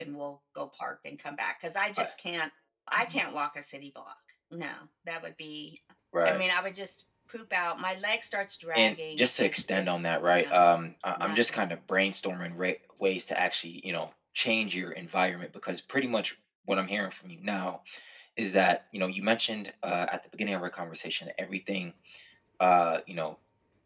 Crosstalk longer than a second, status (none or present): present